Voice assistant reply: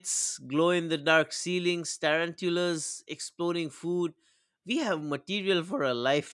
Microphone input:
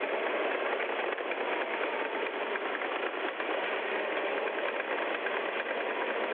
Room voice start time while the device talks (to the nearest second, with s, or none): none